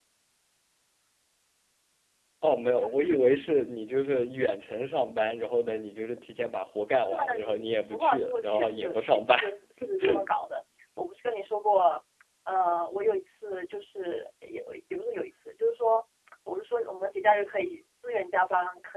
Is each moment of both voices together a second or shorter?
No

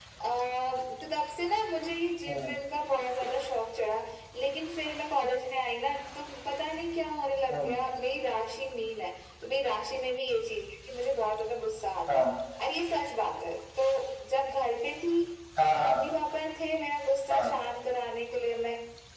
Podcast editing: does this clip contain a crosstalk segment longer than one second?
No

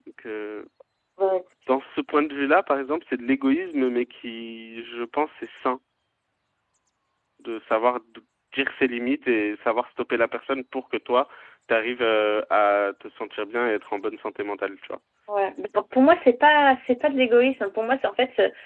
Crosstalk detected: No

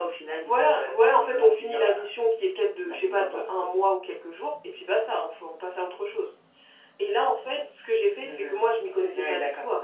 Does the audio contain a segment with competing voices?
Yes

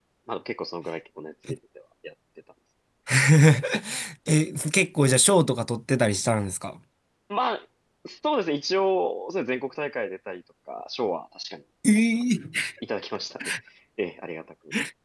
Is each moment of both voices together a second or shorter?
Yes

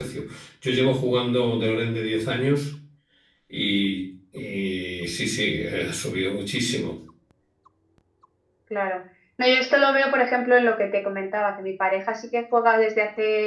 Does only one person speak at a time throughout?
Yes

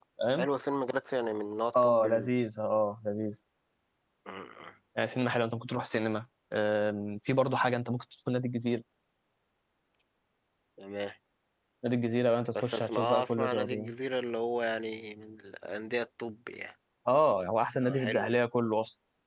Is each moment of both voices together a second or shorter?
No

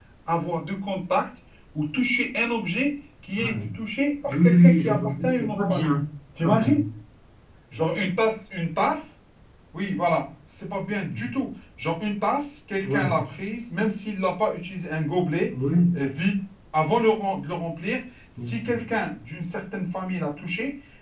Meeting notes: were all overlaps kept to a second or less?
No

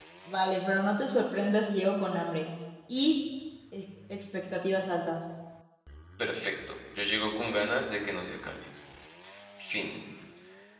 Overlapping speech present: No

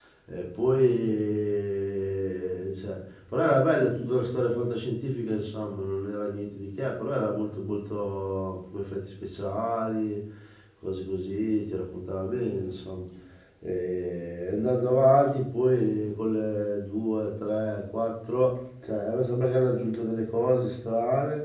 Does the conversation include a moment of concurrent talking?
No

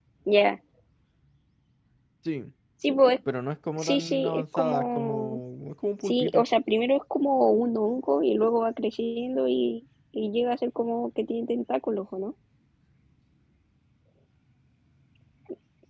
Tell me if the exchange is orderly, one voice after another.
No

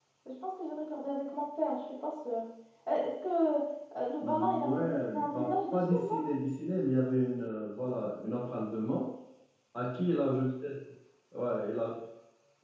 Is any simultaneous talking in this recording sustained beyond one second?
Yes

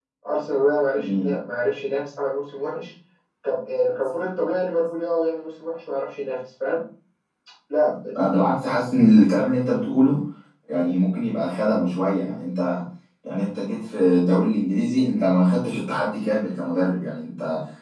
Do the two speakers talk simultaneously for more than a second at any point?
No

